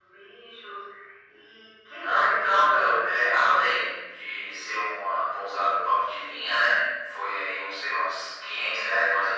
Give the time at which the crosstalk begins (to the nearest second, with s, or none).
2 s